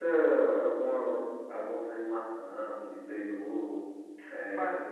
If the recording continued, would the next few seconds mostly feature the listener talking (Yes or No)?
No